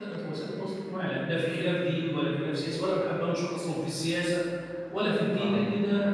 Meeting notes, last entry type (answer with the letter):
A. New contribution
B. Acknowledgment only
B